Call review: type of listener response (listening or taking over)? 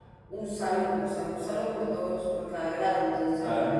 listening